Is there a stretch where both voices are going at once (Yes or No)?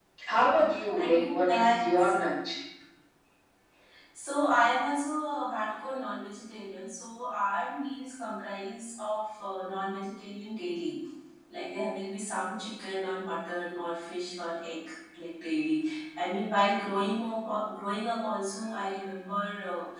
Yes